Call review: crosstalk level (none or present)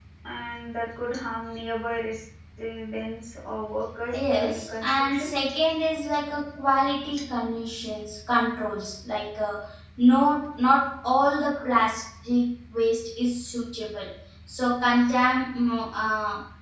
present